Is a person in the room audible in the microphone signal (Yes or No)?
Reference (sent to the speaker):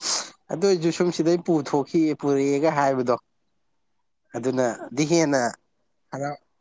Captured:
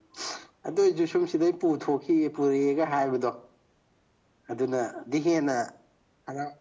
No